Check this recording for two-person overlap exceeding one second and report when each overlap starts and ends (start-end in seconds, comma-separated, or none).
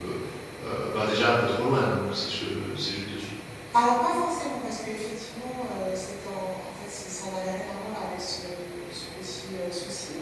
none